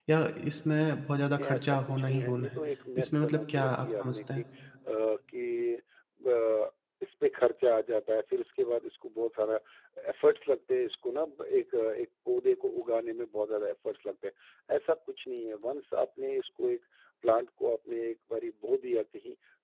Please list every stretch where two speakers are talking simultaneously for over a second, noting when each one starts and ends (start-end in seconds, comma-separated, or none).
1.4-2.6, 3.0-4.4